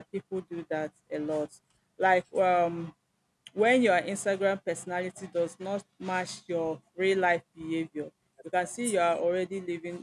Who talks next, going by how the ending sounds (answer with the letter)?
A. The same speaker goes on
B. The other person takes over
A